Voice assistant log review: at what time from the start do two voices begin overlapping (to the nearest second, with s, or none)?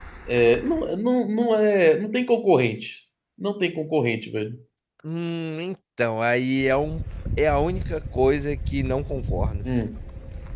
none